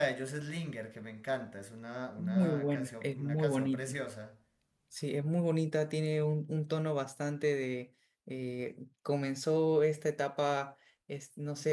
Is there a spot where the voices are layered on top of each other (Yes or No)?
Yes